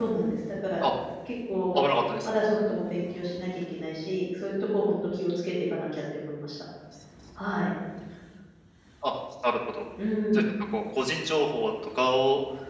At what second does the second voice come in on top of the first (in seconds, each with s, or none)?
none